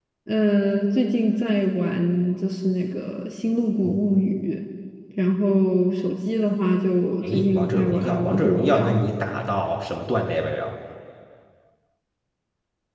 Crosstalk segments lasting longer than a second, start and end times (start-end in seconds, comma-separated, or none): 7.2-8.8